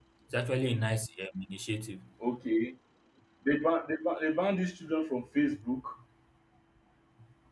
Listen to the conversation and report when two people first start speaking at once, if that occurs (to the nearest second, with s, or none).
none